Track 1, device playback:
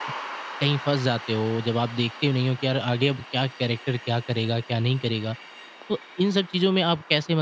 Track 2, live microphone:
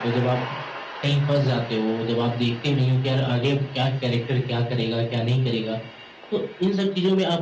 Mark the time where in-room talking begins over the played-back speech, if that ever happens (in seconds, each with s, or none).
none